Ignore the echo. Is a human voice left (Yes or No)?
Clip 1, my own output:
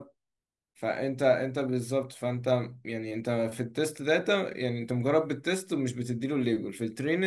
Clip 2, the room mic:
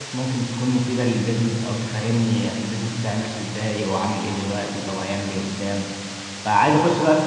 Yes